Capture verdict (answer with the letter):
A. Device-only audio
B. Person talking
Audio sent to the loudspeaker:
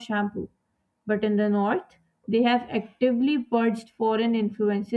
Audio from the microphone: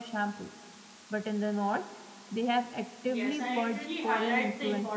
B